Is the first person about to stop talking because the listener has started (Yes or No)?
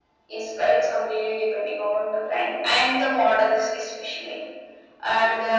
No